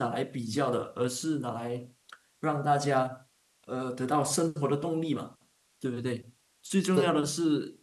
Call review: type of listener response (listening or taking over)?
listening